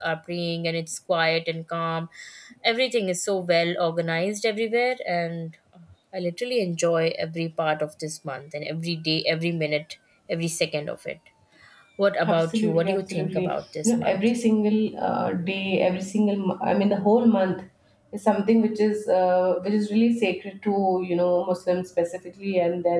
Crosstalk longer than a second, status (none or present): present